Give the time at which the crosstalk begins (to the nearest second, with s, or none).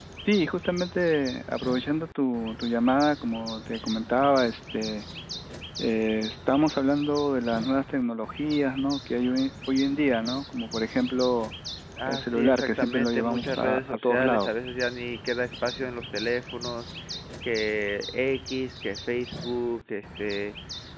12 s